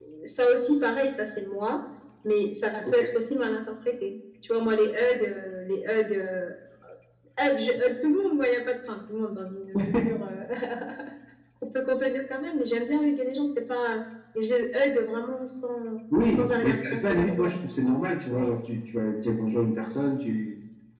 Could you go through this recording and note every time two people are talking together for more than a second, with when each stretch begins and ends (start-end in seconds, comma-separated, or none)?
16.3-17.5